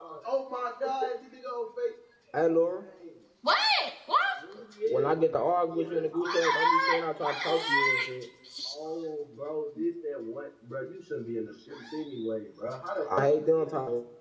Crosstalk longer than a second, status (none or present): present